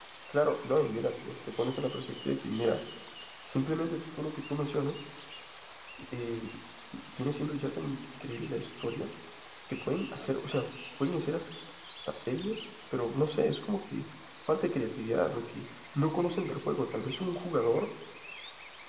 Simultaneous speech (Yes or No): No